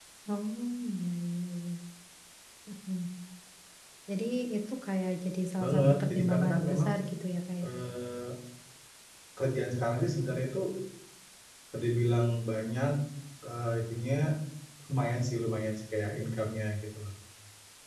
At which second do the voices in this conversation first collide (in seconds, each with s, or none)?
5.6 s